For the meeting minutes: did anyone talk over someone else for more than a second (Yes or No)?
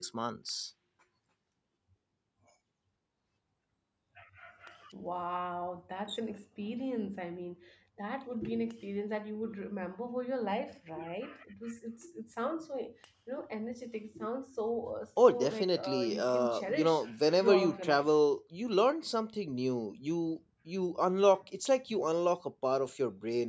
Yes